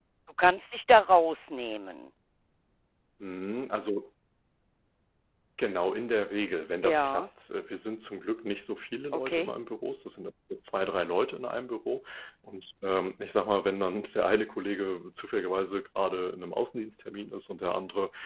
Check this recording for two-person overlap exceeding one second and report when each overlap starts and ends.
none

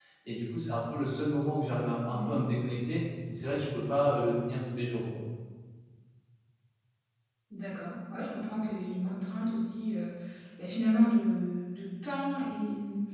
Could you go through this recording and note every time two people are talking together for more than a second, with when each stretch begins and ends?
none

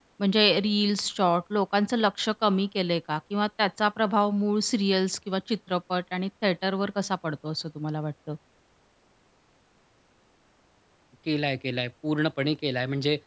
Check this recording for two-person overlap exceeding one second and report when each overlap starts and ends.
none

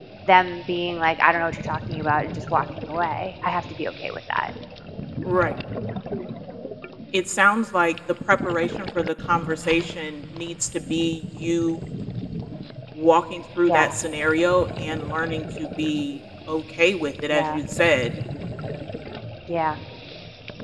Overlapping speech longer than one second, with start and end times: none

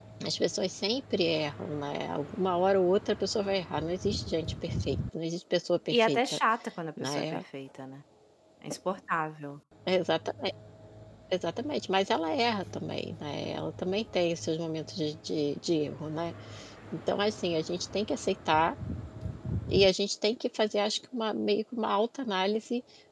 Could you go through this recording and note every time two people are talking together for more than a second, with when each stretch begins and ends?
none

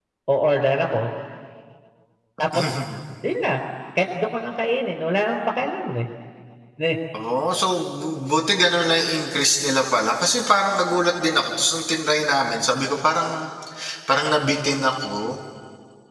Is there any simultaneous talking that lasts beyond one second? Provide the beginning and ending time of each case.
none

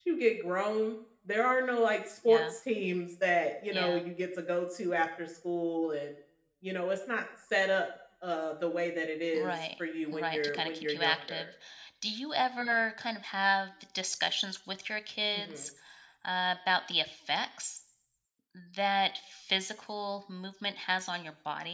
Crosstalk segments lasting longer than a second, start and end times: 10.1-11.4

